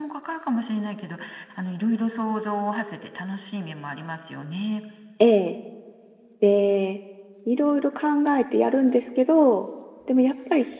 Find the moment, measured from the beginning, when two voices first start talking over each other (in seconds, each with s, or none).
none